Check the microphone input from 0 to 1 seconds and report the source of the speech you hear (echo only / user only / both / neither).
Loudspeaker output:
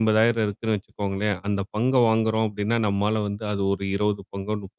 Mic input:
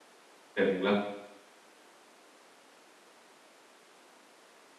user only